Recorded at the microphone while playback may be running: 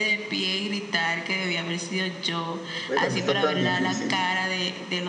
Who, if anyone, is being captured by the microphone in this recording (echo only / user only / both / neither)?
both